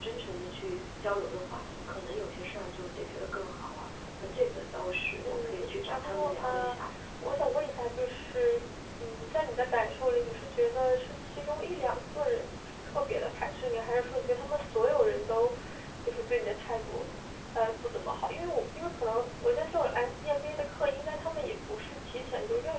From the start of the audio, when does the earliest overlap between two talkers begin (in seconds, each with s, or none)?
5.2 s